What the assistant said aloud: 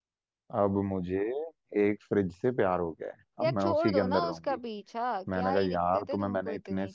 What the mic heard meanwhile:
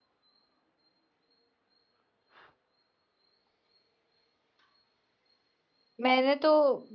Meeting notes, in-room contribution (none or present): present